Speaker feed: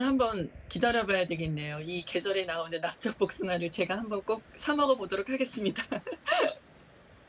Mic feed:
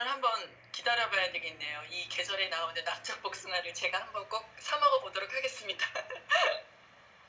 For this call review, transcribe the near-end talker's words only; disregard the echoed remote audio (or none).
none